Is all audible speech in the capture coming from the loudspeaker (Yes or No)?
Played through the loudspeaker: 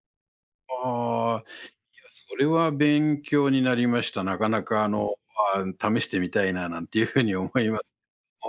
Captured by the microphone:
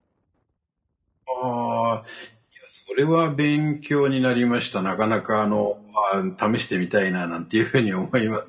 Yes